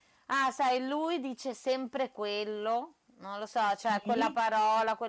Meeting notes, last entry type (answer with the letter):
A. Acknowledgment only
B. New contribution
A